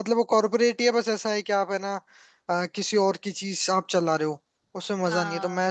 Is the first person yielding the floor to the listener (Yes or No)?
No